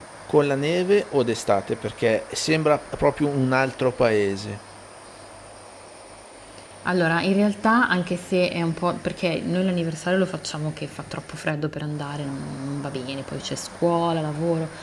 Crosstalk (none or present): none